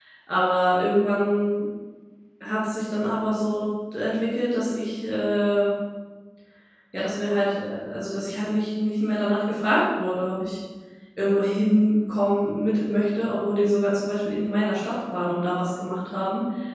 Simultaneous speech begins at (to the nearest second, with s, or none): none